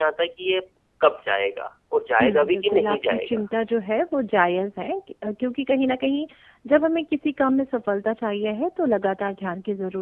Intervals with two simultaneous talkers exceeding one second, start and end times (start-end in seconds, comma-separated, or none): 2.2-3.4